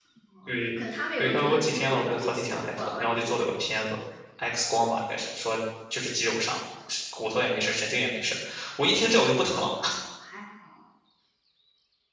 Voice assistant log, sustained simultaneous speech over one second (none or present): present